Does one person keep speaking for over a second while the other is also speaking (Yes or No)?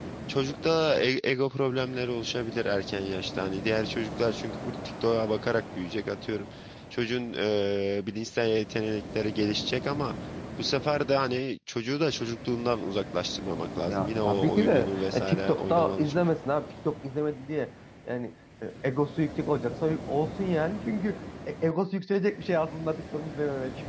Yes